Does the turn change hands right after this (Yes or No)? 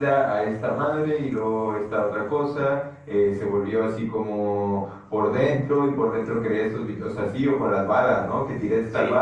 No